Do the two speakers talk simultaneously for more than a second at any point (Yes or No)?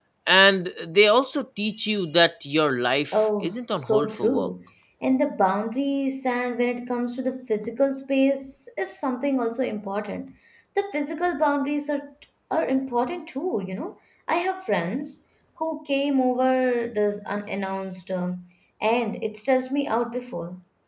Yes